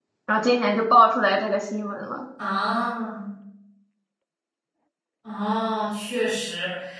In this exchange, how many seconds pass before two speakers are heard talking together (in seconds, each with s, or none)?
none